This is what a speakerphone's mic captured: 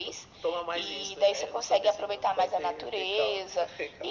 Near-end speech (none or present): none